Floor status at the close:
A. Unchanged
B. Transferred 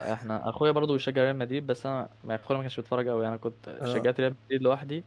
A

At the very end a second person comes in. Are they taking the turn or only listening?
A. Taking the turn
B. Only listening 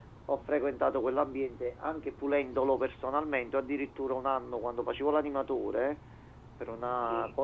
B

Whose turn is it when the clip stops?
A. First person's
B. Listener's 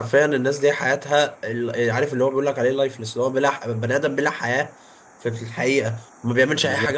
A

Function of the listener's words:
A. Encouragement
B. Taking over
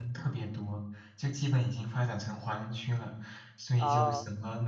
A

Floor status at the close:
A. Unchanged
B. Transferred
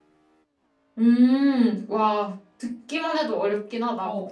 B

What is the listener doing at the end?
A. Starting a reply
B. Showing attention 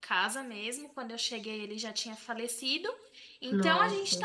B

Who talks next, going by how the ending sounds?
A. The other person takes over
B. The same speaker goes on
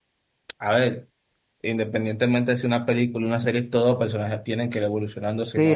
A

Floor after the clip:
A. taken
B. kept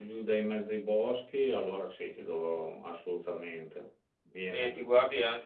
A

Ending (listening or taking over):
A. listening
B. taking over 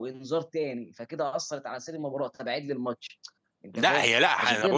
B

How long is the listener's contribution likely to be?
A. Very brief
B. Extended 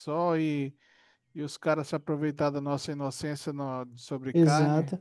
B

